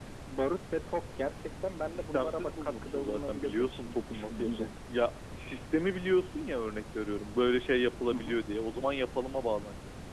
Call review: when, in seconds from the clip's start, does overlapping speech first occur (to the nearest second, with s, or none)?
2 s